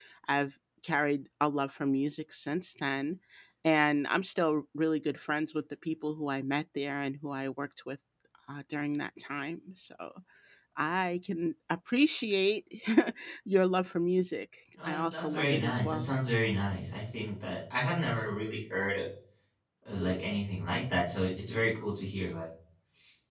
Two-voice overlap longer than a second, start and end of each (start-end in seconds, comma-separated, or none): 14.8-16.1